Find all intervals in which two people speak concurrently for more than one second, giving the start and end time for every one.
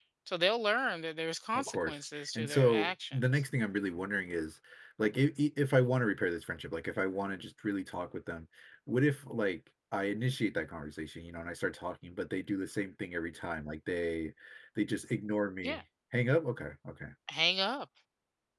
1.6-3.4

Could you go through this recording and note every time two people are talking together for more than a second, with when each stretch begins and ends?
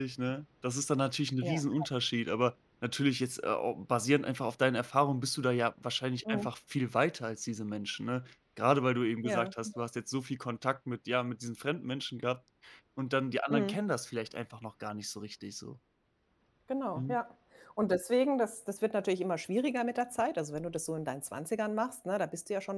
none

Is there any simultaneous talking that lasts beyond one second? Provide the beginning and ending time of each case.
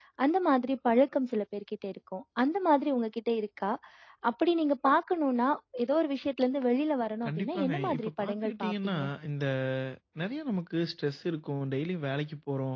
7.2-9.0

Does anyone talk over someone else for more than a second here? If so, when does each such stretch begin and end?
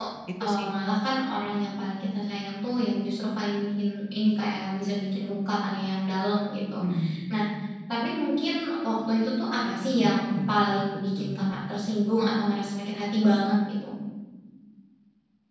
none

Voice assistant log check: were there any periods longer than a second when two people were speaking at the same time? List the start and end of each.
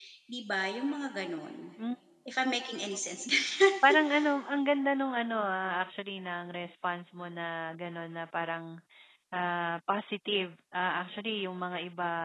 none

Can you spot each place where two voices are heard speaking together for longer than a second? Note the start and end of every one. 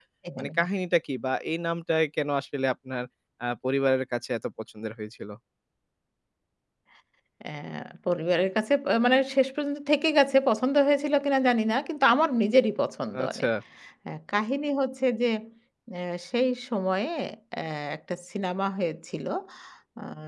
none

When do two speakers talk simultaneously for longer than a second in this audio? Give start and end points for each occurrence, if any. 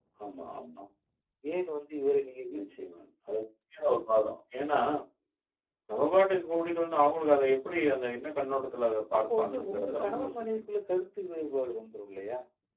9.2-10.6

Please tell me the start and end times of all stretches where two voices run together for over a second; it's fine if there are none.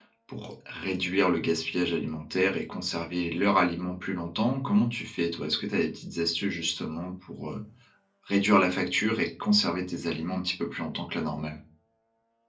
none

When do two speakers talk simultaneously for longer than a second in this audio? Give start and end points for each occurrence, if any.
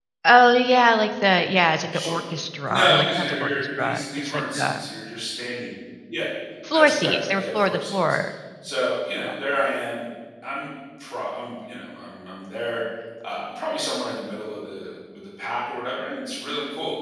2.7-4.8, 6.7-8.2

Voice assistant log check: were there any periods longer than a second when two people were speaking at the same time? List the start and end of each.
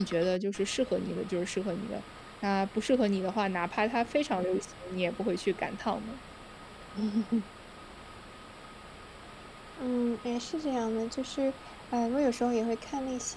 none

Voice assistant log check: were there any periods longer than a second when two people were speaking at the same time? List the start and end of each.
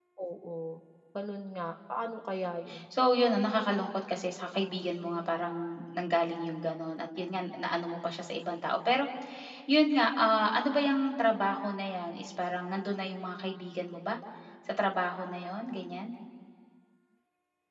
none

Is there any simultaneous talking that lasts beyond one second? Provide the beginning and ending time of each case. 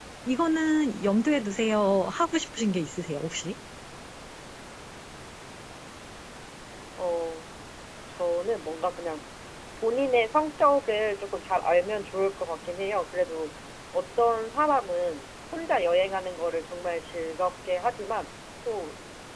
none

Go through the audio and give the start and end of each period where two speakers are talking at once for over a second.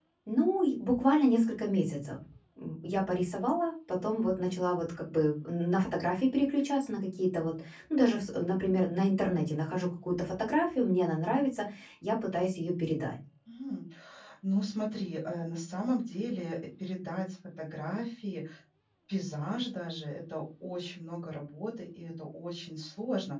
none

